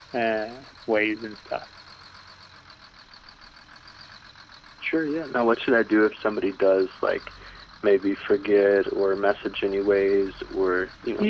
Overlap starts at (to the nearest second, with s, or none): none